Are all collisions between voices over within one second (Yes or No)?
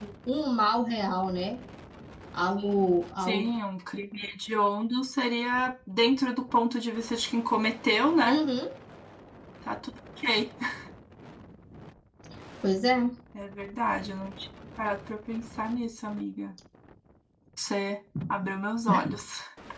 Yes